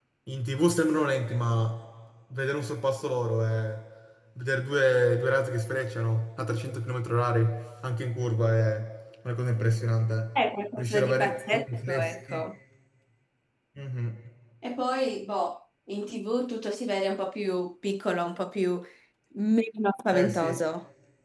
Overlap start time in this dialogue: 10.8 s

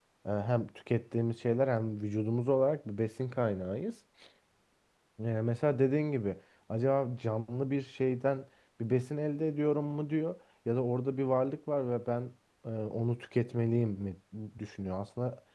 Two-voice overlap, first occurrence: none

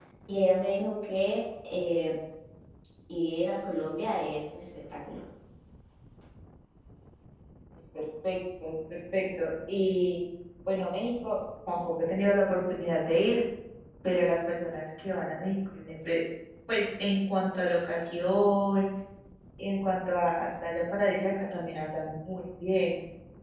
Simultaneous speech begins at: none

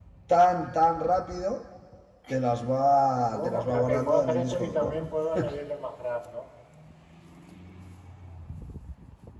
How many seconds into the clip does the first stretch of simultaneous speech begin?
3.3 s

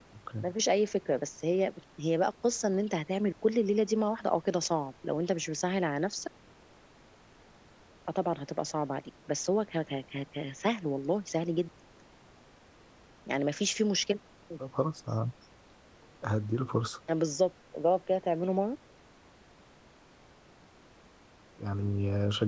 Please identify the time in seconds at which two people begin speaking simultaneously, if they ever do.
none

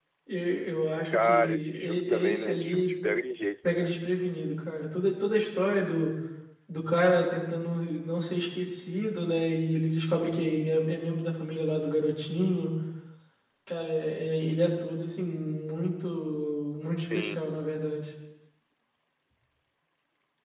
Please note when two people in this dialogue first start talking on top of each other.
1.1 s

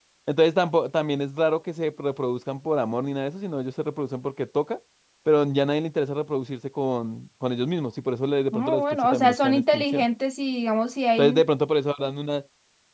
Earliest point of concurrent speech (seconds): 8.5 s

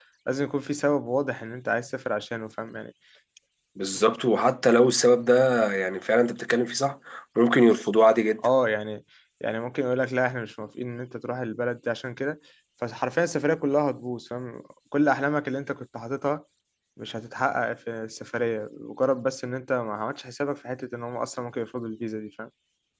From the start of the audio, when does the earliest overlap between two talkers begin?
none

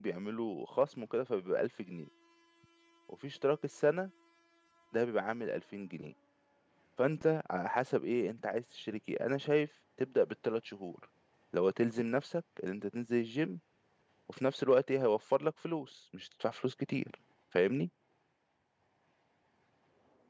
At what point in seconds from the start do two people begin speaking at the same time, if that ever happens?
none

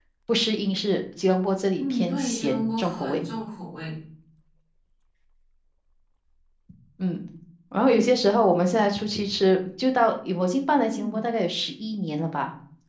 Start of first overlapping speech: 1.8 s

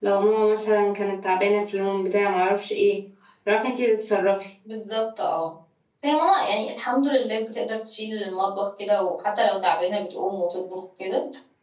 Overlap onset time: none

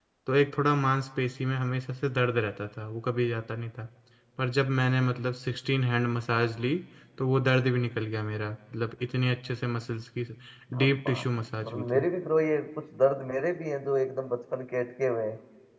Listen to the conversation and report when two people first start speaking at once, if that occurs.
10.8 s

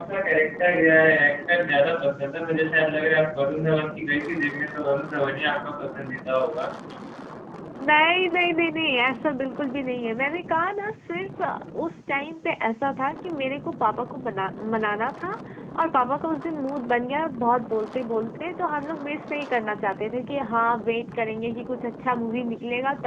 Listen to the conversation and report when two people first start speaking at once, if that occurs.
none

